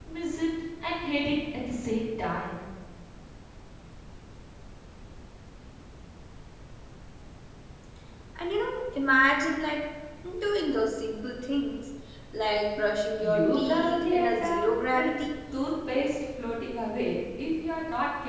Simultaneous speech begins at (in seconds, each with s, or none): 13.2 s